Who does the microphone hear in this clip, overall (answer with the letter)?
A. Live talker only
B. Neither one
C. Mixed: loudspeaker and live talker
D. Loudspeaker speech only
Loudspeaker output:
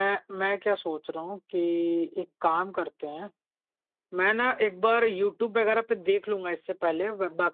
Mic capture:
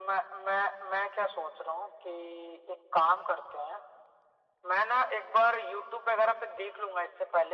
D